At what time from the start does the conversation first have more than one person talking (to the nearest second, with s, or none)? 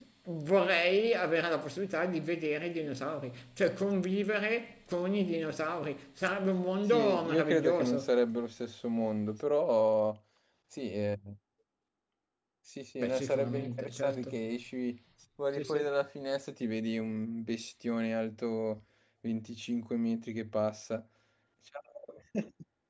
7 s